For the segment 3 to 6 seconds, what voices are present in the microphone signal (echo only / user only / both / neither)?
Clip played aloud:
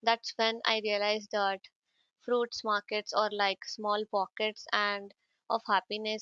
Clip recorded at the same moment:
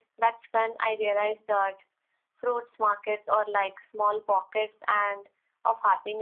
echo only